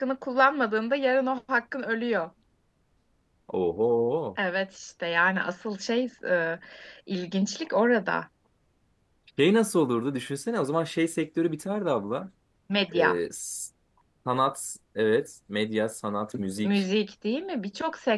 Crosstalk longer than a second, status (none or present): none